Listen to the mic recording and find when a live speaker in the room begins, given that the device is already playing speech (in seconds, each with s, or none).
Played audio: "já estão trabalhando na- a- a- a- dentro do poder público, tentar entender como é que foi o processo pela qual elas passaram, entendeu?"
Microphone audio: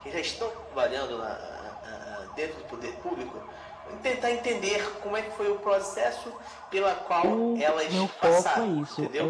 7.2 s